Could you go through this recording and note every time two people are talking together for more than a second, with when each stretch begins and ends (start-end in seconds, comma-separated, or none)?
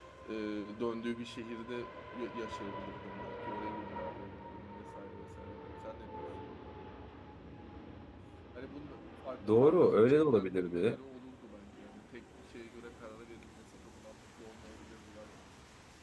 9.5-11.0